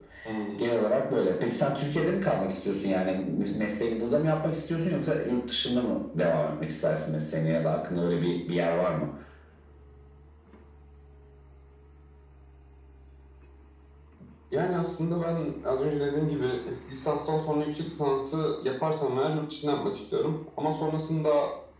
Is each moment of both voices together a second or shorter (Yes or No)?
Yes